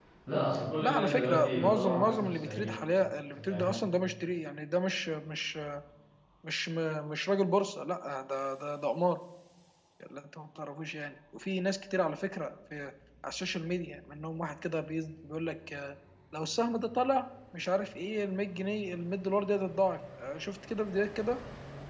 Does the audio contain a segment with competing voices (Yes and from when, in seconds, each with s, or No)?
Yes, from 0.8 s